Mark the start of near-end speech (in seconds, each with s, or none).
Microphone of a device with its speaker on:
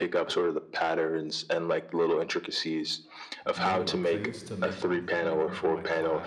3.5 s